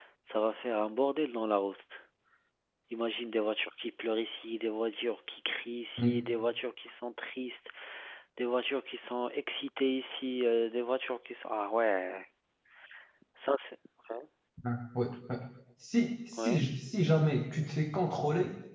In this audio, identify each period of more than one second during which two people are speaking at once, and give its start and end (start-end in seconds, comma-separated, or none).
none